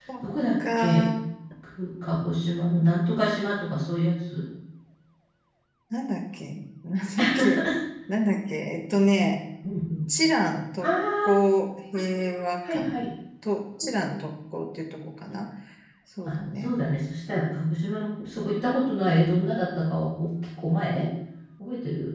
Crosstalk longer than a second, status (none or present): none